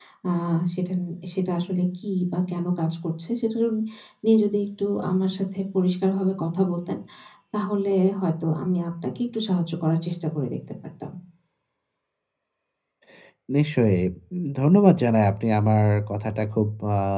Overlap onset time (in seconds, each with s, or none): none